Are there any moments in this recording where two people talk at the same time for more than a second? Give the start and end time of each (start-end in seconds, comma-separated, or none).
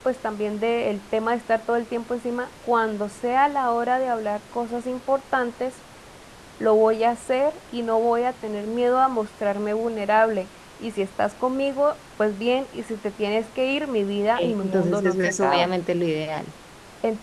14.4-15.7